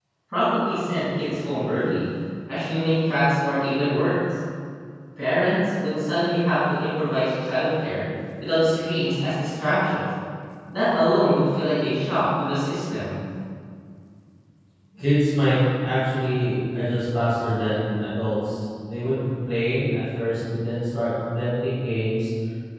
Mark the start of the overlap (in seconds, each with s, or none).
none